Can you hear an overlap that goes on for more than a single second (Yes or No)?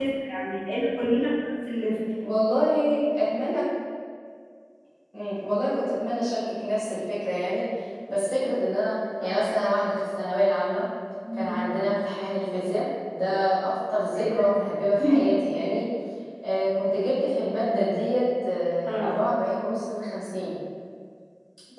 No